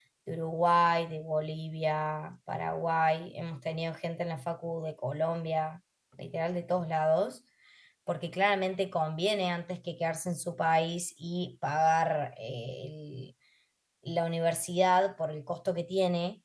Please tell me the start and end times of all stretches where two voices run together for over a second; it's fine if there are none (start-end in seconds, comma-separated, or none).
none